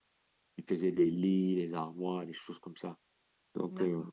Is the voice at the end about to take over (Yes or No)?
No